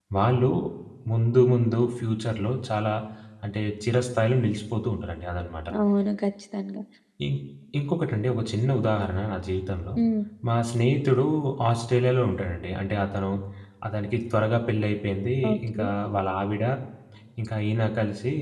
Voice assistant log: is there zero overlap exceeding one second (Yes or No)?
Yes